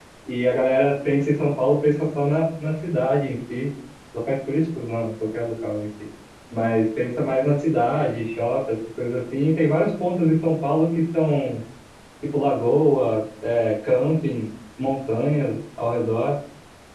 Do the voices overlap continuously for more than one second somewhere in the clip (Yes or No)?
No